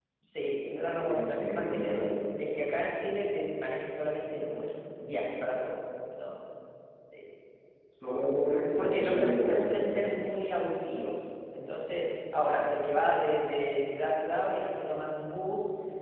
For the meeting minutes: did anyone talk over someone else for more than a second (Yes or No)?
Yes